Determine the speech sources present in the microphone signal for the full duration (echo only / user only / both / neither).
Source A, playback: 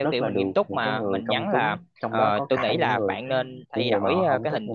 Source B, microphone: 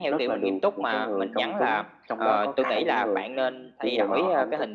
echo only